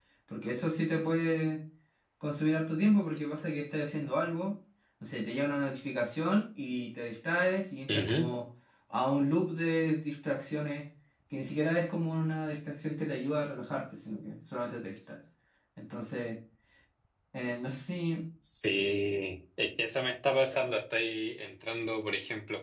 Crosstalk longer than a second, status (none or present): none